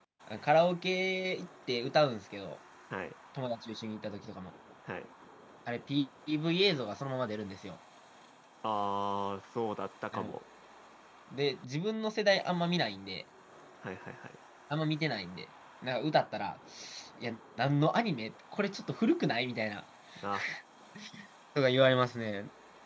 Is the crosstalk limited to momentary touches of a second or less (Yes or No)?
Yes